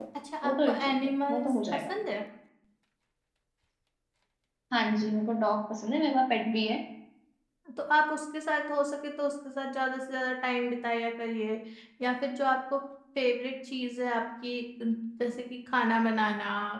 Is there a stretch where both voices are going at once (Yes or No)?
Yes